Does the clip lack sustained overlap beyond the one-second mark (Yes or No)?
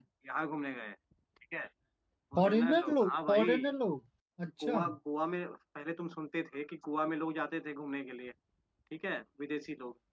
No